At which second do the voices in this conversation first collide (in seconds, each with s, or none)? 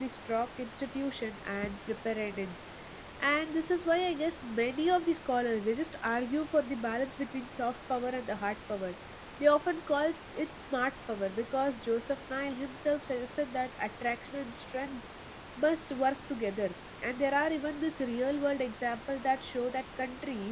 none